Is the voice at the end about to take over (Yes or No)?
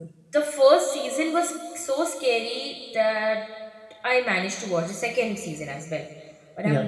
No